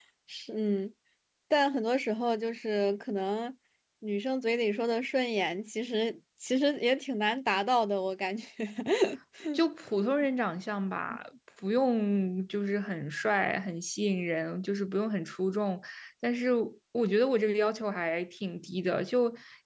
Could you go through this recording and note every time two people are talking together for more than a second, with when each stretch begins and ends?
none

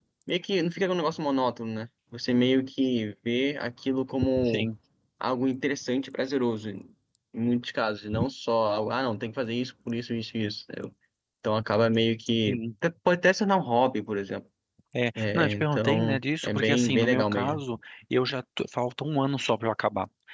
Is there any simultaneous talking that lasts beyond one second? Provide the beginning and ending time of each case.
15.2-17.6

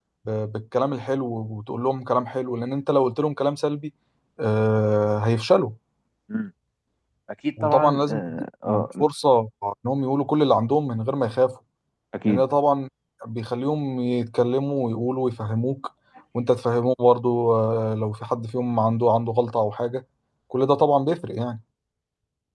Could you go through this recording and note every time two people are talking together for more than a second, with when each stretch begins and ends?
7.6-9.0

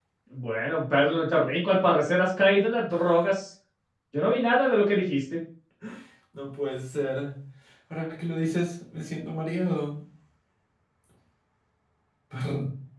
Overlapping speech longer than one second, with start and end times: none

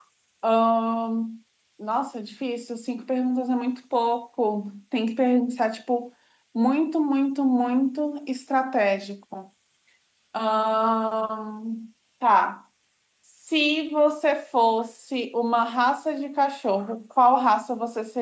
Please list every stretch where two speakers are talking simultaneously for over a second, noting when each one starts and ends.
none

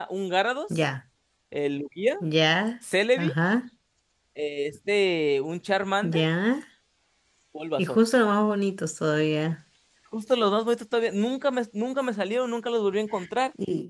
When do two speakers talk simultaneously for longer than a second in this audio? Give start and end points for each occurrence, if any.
none

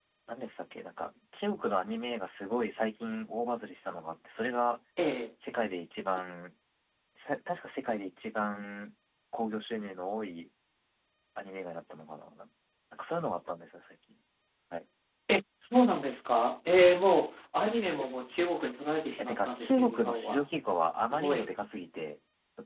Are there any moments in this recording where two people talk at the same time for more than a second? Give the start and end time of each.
19.2-20.4

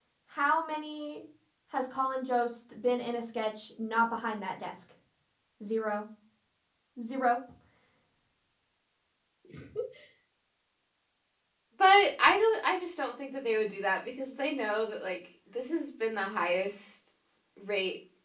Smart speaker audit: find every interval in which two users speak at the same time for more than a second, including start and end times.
none

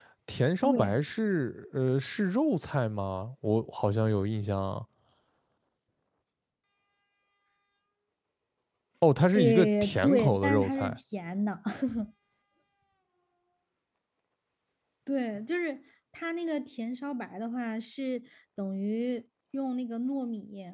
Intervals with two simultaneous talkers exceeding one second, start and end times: 9.3-11.0

